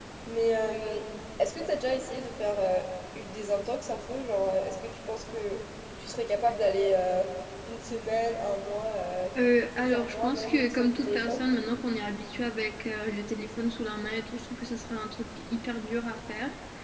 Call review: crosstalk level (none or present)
present